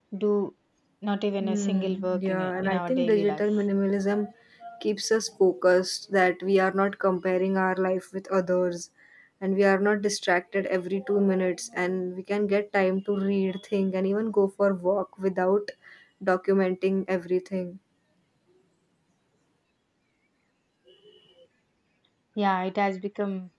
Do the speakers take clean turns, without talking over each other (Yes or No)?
No